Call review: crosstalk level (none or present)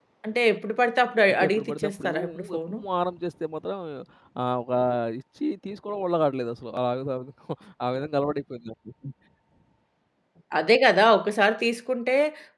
present